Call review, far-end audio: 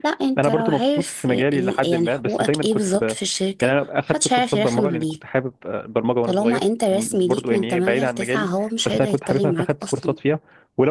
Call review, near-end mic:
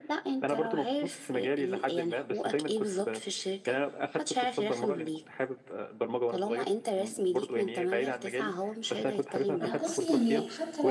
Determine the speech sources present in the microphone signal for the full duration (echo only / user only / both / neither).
both